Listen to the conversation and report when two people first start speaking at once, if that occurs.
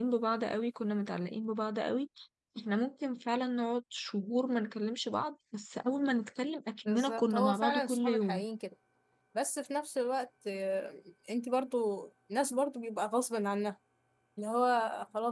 6.8 s

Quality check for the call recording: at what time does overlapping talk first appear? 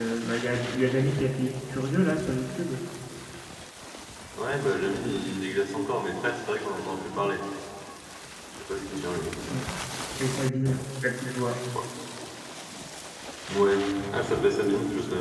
none

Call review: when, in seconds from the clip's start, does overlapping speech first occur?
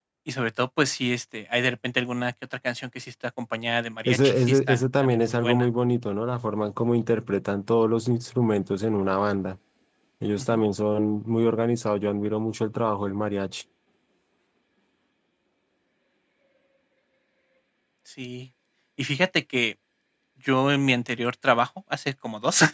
4.0 s

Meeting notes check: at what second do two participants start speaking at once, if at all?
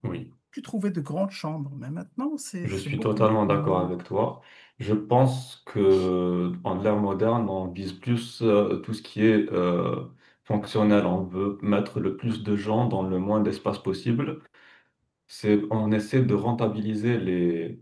2.6 s

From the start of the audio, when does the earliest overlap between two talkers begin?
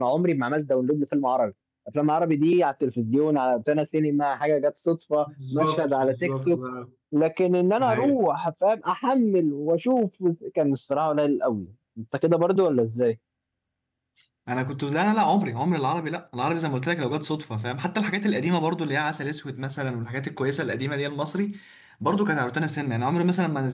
5.3 s

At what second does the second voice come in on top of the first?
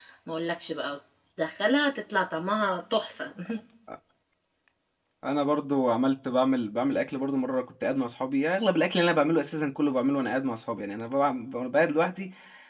none

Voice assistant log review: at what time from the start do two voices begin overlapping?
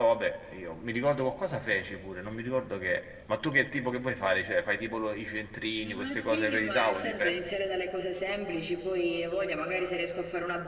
5.8 s

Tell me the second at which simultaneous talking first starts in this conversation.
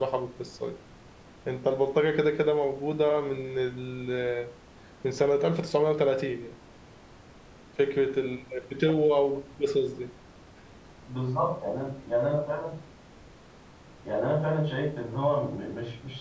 none

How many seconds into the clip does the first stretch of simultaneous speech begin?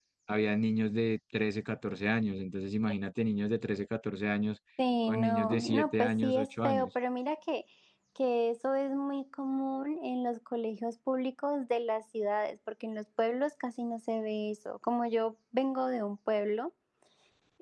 5.1 s

